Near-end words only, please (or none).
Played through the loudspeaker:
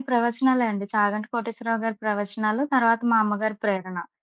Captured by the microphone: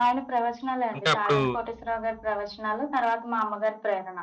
అంటే అప్పుడు